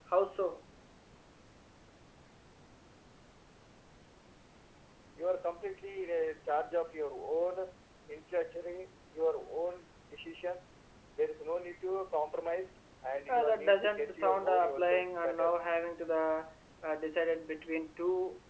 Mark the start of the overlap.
13.3 s

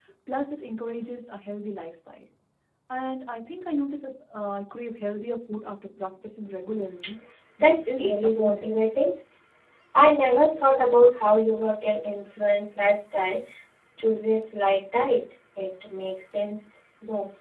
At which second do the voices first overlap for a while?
7.6 s

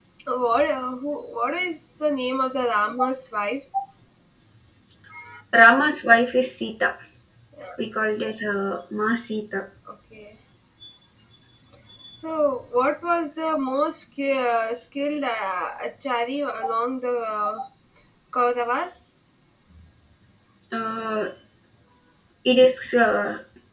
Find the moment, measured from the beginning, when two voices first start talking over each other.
none

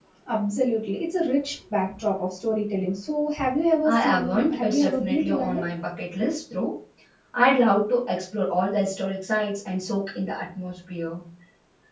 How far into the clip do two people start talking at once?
3.8 s

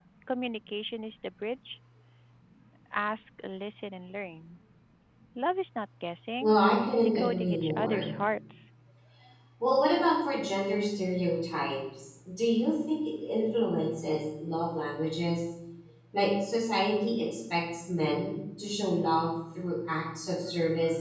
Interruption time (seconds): 6.4 s

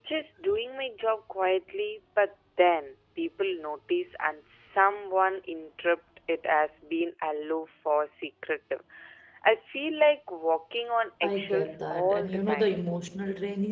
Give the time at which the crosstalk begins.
11.2 s

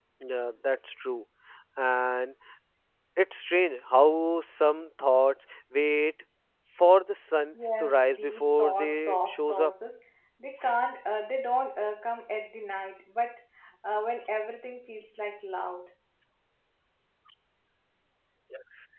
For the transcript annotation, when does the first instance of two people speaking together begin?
7.8 s

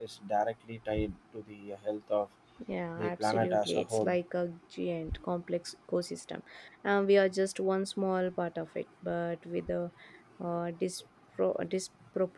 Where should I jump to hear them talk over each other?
3.0 s

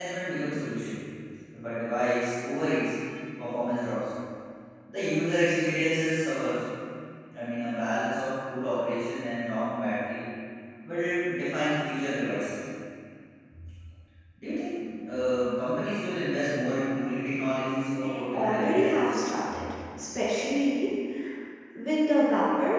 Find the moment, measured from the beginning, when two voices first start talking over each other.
17.9 s

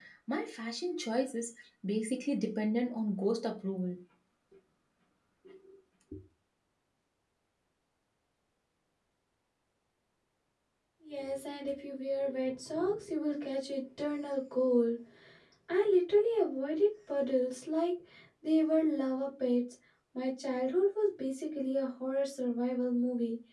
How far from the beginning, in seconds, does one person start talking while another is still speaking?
none

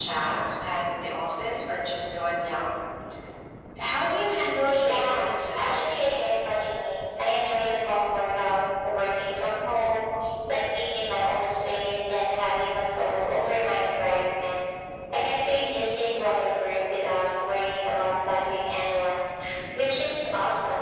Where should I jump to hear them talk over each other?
4.7 s

